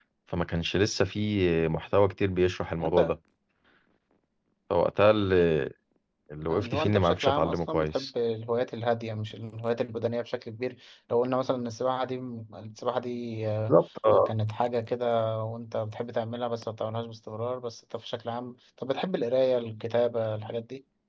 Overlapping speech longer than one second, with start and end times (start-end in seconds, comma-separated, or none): 6.5-8.1